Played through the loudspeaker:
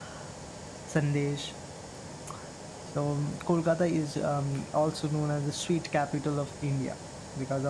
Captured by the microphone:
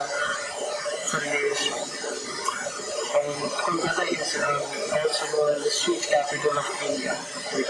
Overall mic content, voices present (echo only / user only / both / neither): echo only